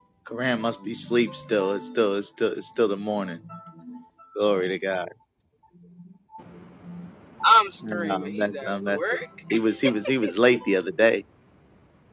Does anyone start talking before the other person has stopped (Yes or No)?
Yes